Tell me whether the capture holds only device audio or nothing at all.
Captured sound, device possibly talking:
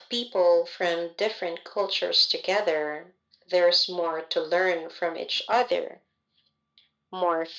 Yes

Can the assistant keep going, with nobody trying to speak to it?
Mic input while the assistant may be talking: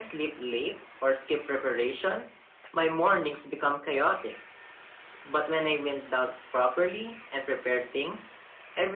Yes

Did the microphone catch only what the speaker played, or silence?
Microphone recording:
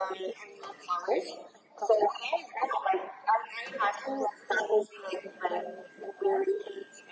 Yes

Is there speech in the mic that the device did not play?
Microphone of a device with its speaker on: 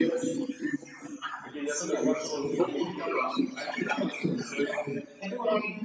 Yes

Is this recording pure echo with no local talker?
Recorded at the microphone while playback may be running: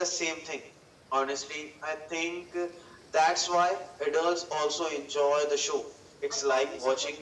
No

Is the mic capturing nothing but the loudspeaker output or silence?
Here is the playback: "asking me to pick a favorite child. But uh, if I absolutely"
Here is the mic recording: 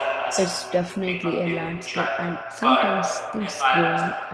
No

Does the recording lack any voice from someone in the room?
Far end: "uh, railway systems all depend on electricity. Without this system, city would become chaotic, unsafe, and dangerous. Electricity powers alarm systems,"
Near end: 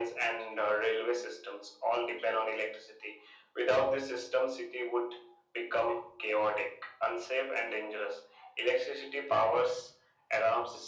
Yes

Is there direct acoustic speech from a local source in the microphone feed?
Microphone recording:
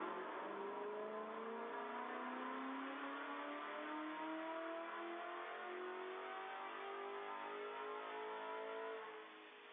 No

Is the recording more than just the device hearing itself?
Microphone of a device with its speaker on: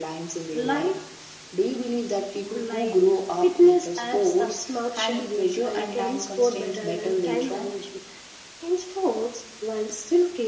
No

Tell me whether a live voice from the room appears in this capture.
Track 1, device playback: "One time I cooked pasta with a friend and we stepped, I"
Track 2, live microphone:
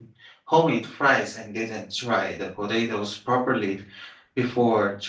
Yes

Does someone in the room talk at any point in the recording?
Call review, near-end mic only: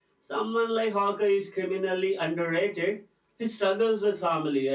Yes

